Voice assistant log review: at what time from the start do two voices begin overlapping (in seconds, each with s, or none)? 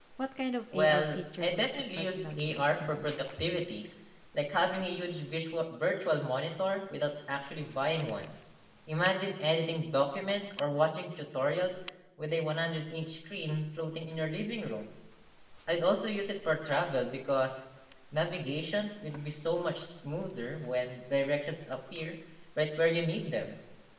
0.7 s